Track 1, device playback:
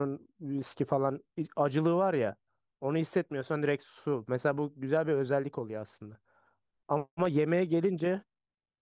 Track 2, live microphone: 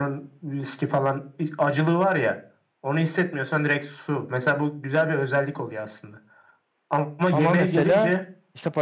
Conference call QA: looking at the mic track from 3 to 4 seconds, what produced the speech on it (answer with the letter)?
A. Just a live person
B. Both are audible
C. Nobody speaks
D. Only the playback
D